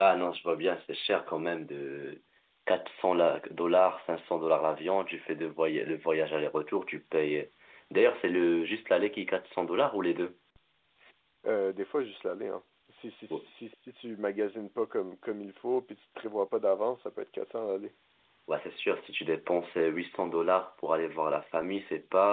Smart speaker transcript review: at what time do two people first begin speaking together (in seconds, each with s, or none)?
none